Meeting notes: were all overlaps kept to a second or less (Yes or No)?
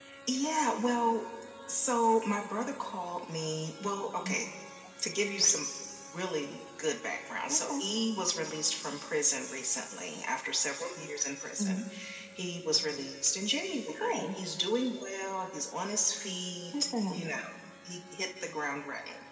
Yes